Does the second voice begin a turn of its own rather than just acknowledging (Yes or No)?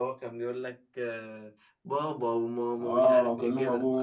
Yes